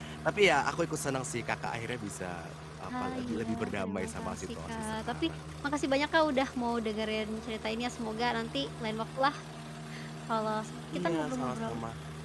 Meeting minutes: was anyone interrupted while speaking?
Yes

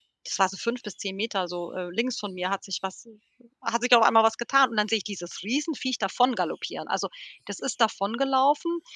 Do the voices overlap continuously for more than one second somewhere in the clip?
No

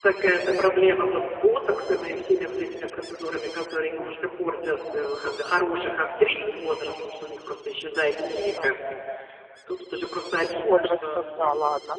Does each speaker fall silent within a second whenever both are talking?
No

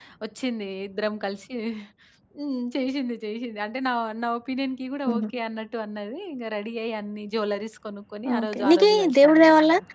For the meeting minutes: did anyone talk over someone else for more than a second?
Yes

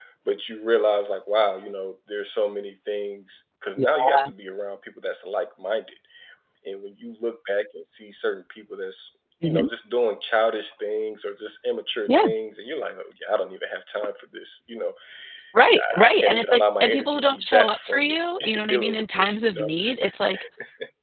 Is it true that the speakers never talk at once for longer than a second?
No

